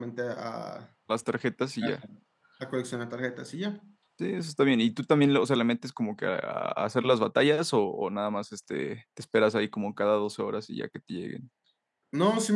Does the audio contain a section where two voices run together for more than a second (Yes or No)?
No